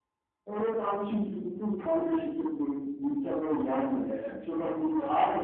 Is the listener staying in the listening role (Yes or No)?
No